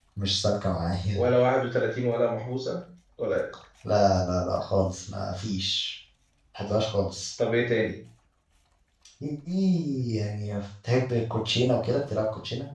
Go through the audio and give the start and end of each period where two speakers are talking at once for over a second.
none

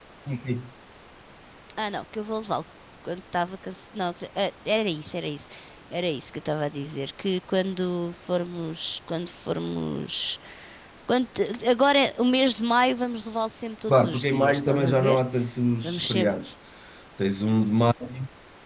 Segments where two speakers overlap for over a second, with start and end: 13.9-15.2

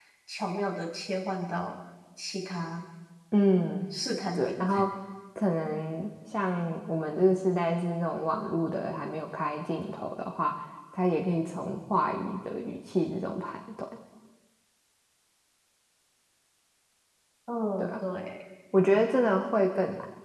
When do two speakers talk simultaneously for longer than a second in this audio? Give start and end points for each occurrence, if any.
none

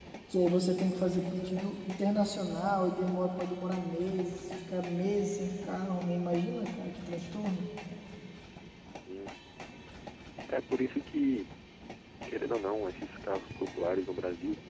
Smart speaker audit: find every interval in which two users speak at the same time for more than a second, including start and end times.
none

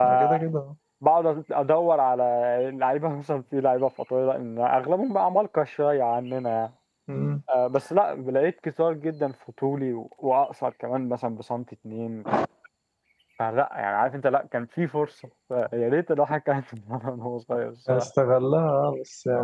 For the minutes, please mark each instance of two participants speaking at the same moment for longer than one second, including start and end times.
none

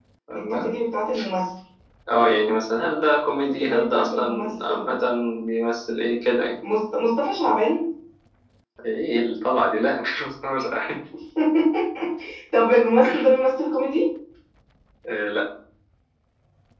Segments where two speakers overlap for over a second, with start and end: 3.6-5.0

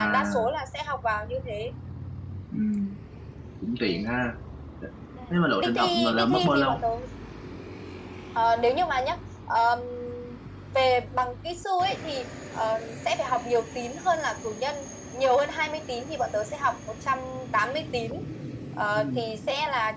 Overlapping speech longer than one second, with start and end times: 5.6-6.8

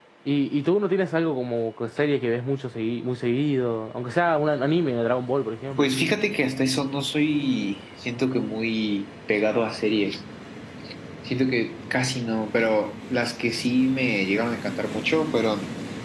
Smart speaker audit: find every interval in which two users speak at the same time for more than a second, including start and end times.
none

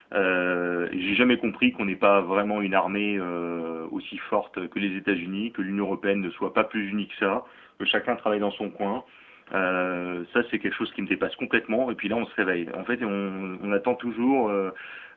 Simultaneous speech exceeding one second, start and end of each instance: none

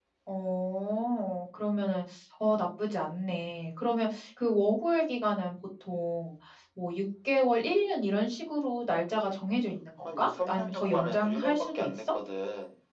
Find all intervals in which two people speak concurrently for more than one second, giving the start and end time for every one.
10.0-11.9

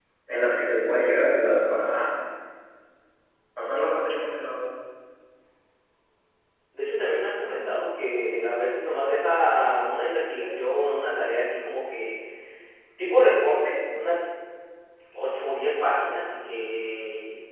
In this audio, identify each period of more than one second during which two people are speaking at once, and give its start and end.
none

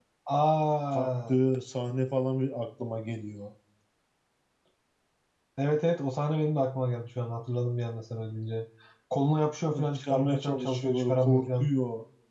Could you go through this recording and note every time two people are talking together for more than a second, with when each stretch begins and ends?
9.6-11.7

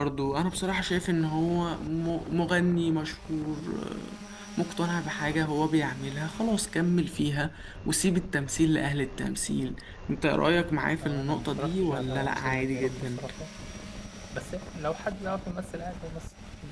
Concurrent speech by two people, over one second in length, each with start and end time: 11.0-13.2

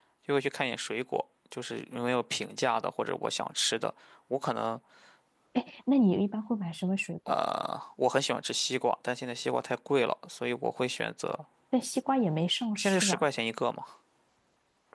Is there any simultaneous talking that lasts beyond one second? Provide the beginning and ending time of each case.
none

